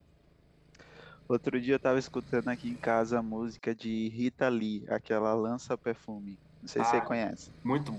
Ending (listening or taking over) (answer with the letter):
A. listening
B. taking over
B